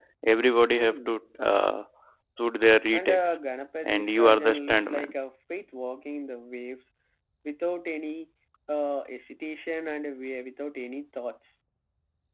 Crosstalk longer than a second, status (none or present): present